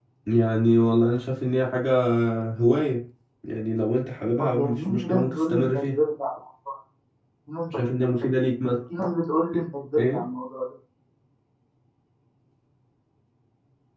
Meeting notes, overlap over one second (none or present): present